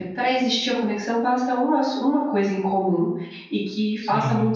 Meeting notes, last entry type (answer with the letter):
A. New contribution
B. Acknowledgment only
B